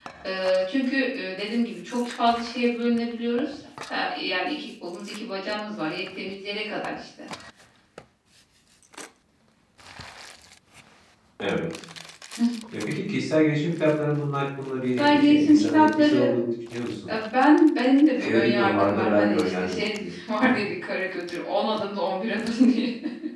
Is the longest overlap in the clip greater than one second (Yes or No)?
Yes